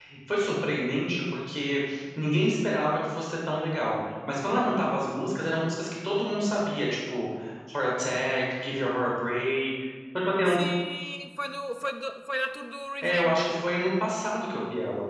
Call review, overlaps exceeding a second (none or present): none